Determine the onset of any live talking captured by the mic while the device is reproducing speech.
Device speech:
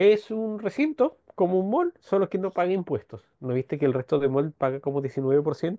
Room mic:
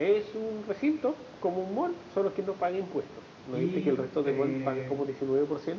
3.5 s

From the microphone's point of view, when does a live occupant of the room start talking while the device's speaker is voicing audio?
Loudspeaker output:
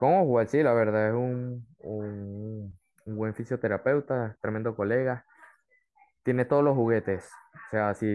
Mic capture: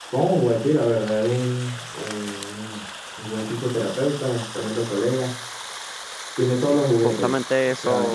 6.6 s

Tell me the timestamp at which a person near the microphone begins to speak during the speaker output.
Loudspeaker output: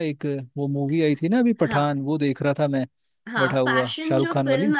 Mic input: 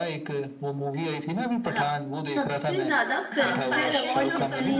2.3 s

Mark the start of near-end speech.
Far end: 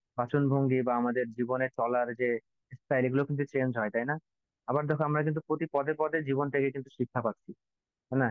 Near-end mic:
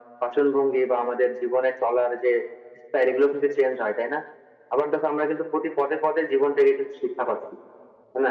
none

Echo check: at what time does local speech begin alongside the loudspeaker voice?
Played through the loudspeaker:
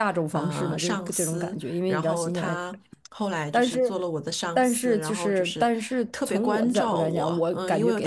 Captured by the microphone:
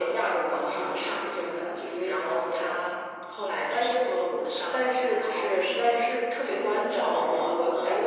none

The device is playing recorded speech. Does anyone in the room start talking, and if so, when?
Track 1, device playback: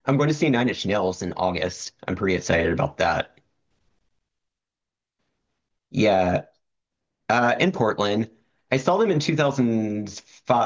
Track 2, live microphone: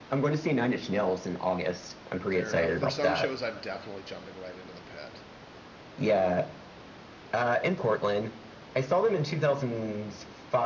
2.2 s

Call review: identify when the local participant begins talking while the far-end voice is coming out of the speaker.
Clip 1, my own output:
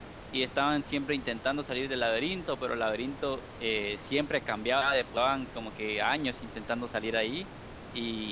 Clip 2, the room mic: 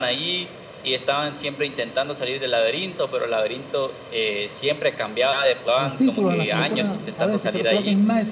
5.7 s

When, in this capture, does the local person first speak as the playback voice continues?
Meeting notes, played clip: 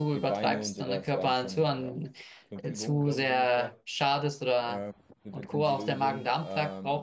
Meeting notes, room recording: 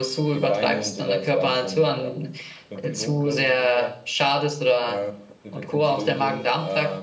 none

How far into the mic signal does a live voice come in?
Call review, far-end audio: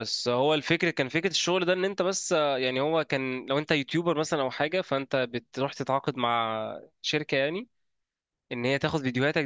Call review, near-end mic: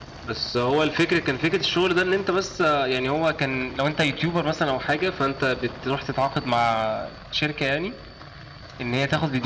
none

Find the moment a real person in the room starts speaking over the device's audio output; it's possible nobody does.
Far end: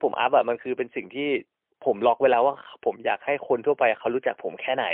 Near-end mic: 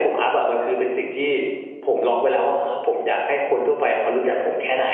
none

